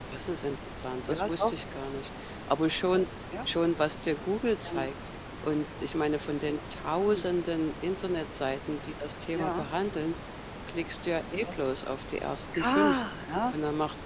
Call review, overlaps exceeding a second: none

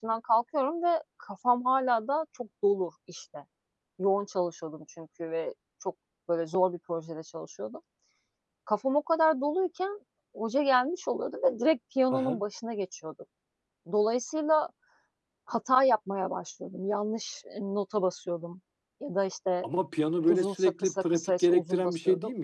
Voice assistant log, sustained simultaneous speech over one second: present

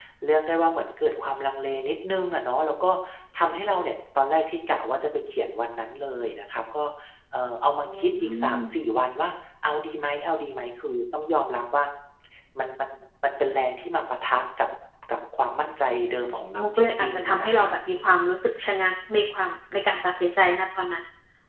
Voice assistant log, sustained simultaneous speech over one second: present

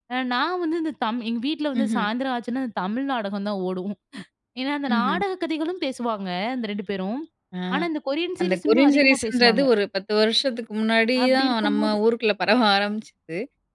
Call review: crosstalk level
present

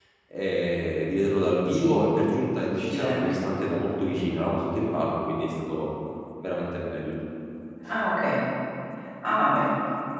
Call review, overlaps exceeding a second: none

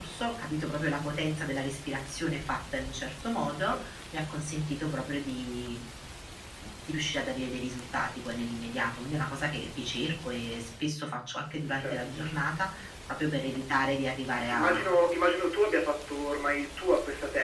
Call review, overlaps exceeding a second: none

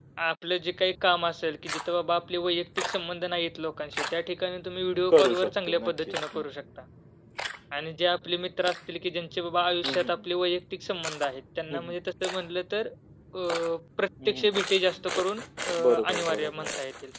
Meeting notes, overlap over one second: present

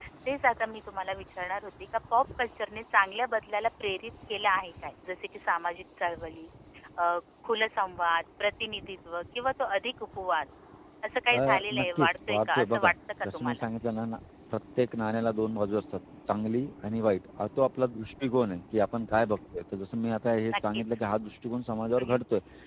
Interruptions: present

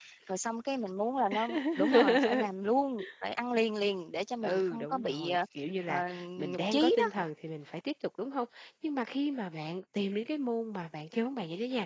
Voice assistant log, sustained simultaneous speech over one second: present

